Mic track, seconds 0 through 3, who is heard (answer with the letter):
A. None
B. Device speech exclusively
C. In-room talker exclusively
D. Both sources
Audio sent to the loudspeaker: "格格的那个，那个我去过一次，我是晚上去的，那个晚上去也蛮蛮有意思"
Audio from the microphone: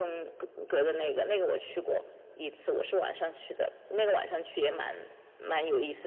B